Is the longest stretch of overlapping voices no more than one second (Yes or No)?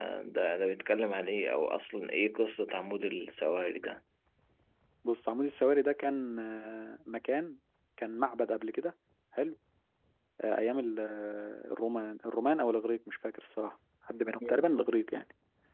Yes